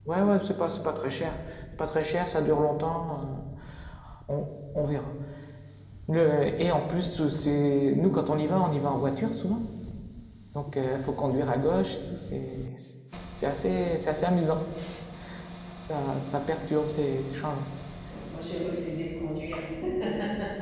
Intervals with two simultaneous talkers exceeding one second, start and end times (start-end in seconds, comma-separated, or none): none